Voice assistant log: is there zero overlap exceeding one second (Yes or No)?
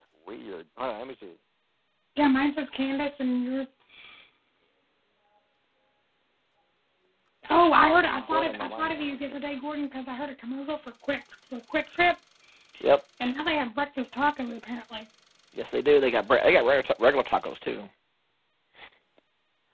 No